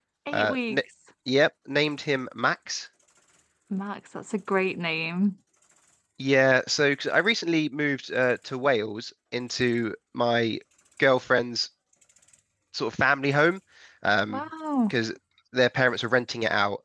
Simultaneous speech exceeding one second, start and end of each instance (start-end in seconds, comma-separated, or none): none